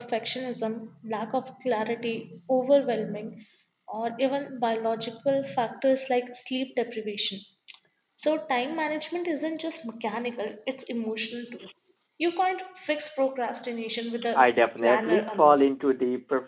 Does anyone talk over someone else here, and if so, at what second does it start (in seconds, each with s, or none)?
14.4 s